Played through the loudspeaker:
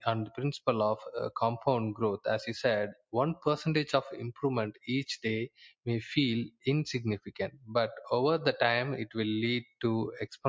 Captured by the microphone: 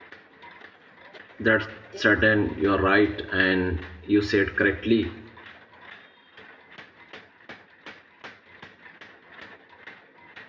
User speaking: Yes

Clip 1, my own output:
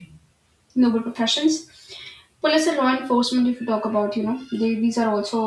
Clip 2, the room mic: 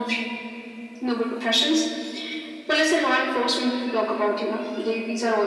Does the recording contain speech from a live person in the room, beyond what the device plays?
No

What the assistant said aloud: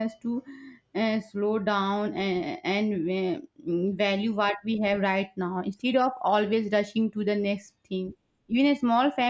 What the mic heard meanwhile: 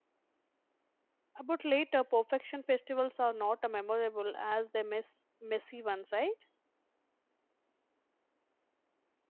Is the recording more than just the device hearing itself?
Yes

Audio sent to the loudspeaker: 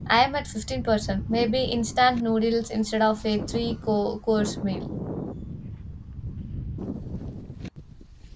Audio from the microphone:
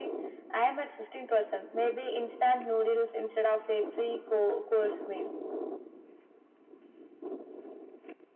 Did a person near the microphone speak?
No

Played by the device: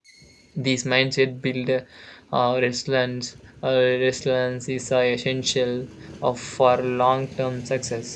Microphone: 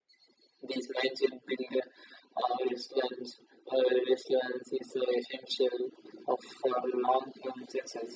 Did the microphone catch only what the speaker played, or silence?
Yes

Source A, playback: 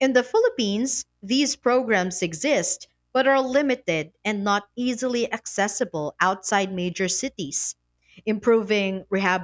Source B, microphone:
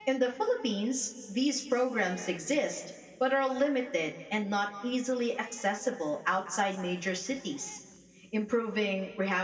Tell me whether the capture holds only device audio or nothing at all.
Yes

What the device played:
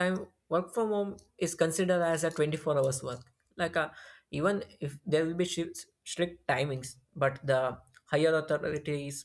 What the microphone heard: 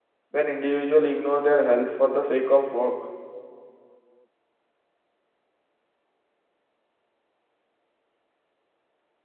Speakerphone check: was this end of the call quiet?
No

